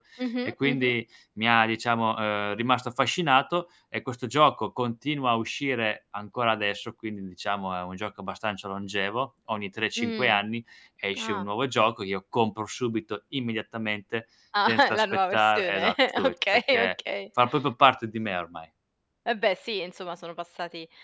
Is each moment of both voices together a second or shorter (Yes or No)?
No